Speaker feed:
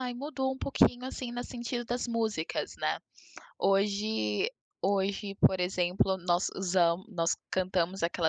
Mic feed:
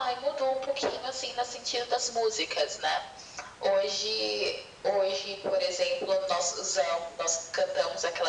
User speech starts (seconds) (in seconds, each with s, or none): none